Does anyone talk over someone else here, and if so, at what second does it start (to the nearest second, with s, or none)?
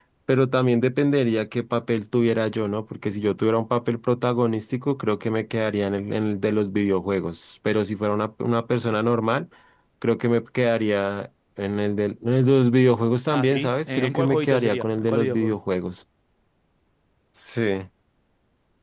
13 s